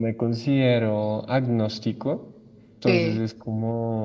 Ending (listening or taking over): listening